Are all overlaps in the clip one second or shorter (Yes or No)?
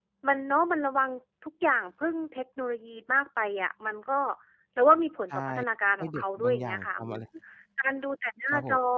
No